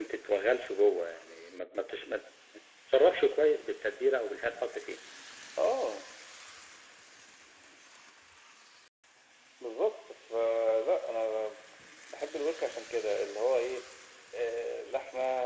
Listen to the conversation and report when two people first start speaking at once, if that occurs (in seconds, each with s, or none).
none